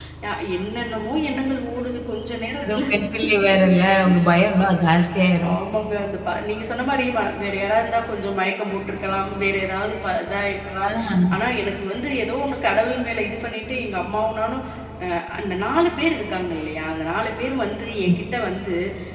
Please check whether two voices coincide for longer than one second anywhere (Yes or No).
No